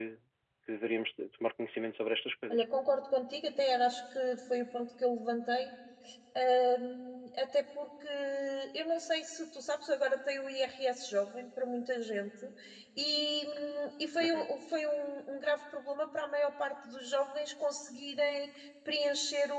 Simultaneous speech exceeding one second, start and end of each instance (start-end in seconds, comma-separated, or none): none